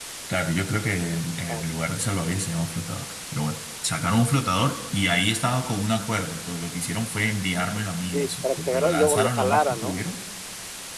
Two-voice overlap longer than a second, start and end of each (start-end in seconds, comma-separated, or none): 8.1-10.0